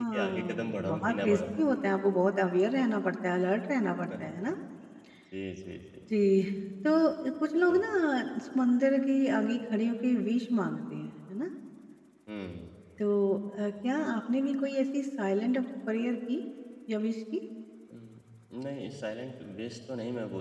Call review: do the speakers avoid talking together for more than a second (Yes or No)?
No